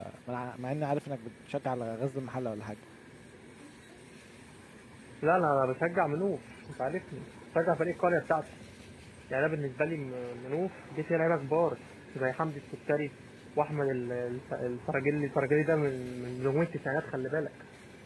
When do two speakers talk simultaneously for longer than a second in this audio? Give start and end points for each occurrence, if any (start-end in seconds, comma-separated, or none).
none